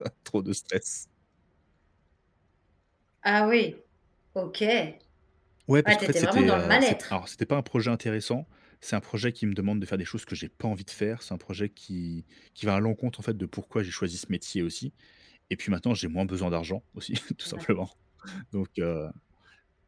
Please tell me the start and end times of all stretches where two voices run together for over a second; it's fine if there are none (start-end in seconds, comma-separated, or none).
5.8-7.1